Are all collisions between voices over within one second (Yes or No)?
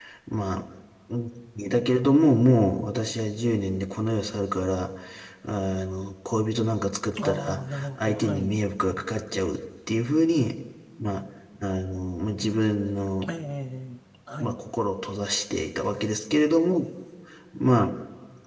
No